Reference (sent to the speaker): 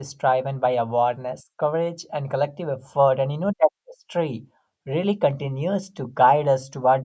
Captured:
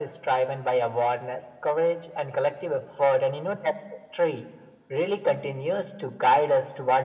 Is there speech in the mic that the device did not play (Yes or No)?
No